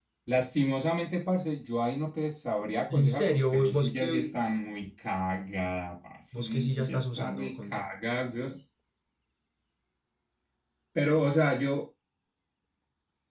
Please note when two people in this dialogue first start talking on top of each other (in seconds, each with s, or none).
2.9 s